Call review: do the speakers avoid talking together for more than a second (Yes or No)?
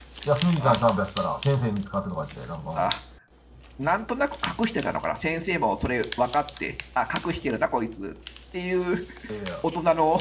Yes